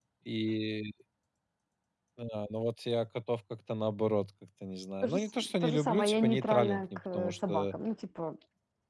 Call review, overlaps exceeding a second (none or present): present